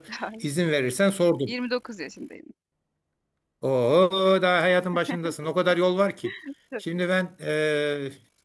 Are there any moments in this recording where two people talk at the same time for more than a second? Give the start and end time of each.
none

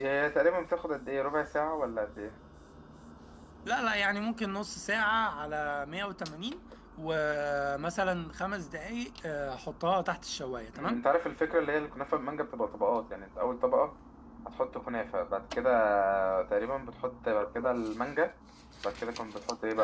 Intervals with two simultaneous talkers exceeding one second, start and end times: none

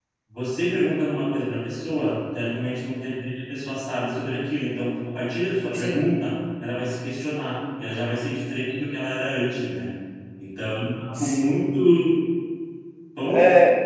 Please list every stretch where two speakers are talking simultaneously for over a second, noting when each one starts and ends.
none

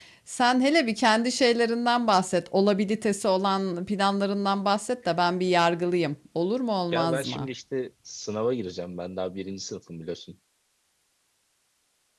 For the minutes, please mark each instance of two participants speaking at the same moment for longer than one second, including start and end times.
none

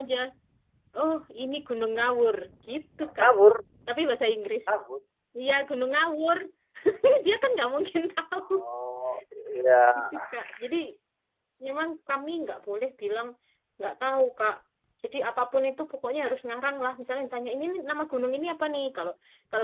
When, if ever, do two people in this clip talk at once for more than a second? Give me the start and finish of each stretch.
none

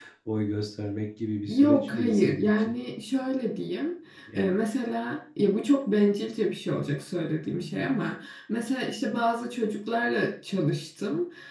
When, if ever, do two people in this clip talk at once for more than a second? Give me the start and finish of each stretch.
1.5-2.8

